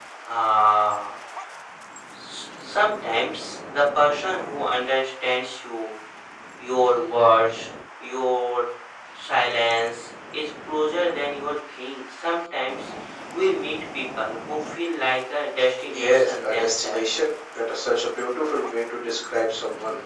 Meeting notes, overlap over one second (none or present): present